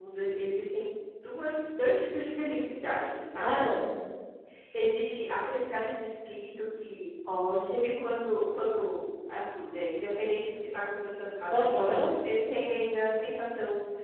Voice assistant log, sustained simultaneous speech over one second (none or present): none